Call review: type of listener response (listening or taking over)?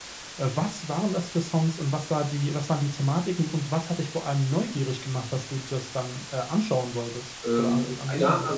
taking over